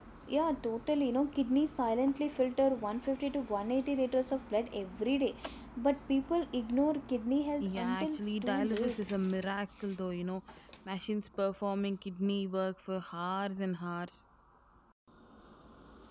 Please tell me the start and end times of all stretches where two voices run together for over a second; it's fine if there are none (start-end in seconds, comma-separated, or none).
7.6-9.0